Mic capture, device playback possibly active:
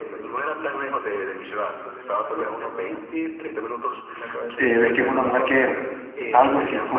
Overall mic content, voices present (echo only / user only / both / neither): both